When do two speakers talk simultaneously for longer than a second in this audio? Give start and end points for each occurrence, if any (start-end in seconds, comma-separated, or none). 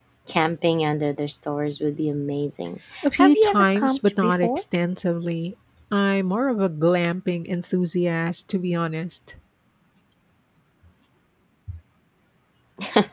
3.0-4.6